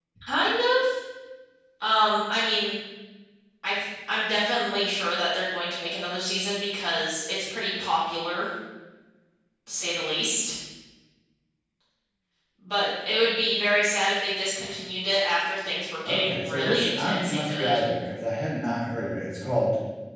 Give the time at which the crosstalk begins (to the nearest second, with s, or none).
16 s